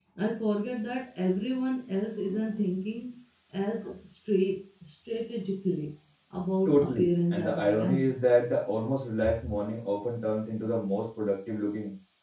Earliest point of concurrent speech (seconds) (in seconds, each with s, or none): 6.7 s